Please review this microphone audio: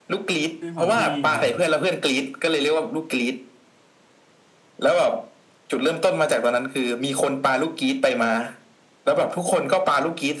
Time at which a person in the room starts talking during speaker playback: 1 s

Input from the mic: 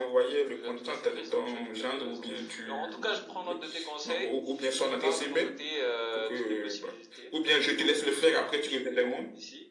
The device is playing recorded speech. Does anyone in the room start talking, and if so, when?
none

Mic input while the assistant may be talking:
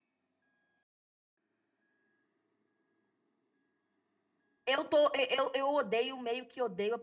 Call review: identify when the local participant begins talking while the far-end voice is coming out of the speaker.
5 s

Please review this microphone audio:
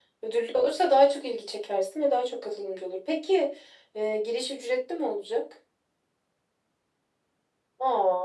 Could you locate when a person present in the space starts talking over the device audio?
none

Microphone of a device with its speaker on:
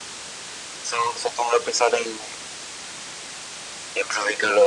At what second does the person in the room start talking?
none

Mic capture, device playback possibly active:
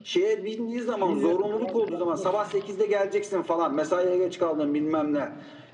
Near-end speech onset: 1 s

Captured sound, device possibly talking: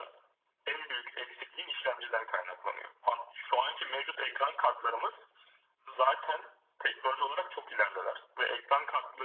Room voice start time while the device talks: none

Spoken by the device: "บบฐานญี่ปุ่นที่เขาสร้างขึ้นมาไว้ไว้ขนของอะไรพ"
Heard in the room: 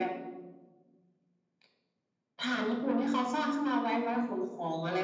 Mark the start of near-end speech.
none

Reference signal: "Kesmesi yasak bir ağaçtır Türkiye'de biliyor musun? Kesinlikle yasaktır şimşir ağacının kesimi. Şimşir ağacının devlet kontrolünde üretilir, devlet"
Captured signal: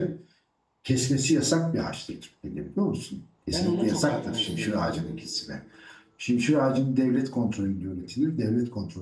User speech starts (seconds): 3 s

